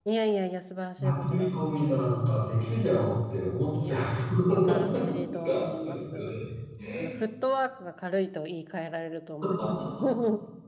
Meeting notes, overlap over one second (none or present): present